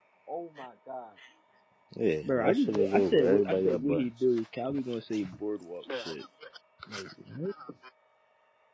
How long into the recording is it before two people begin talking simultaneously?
2.2 s

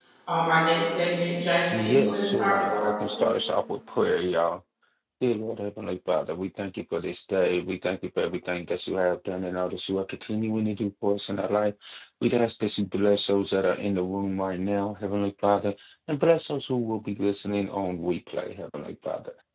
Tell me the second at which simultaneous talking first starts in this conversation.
1.7 s

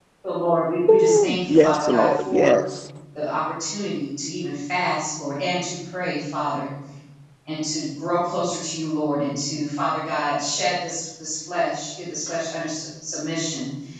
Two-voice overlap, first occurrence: 0.9 s

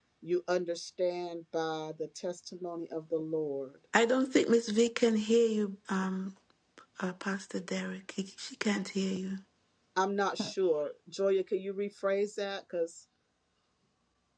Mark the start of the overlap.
none

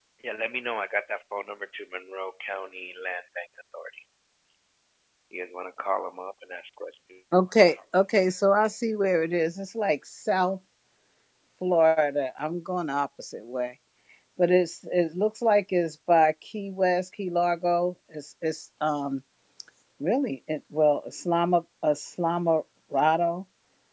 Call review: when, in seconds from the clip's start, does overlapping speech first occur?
none

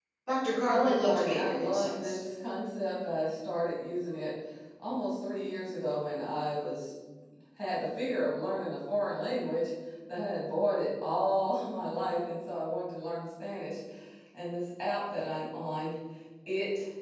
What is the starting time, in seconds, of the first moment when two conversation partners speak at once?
0.7 s

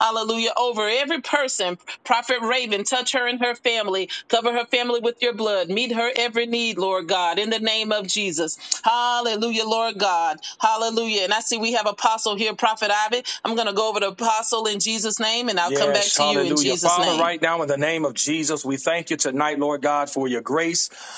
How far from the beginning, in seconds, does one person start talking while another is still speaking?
15.7 s

